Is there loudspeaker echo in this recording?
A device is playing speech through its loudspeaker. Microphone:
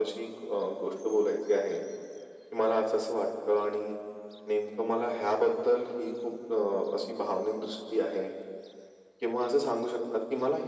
Yes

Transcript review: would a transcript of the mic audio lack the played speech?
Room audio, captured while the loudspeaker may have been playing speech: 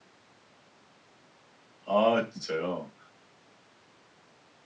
Yes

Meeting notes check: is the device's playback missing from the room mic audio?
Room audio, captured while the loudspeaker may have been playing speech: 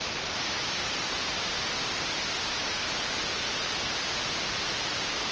Yes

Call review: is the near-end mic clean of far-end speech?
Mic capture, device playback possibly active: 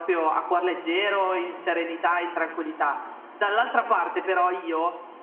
No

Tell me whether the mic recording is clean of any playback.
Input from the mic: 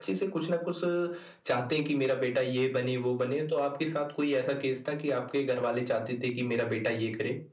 Yes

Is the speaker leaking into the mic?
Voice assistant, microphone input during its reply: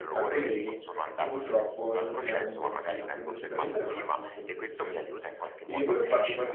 Yes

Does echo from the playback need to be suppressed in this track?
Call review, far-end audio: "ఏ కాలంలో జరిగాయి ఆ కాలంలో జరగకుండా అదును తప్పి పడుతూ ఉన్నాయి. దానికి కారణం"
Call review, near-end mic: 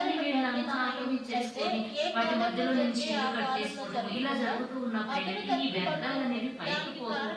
Yes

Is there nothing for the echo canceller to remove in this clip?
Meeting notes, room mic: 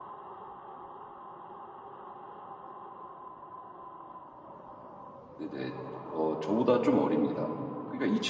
Yes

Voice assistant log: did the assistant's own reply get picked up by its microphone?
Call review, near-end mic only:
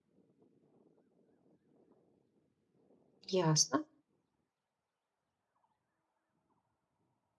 No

